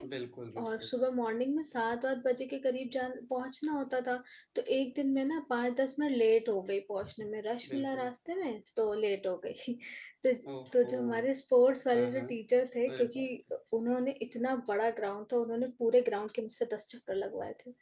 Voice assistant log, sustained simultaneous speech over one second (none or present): none